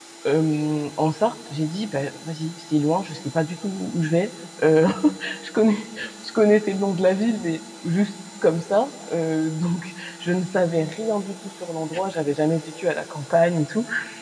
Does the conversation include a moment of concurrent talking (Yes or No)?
No